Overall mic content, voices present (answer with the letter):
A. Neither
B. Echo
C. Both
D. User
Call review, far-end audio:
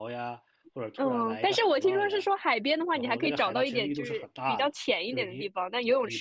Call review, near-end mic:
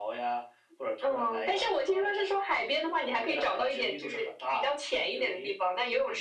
B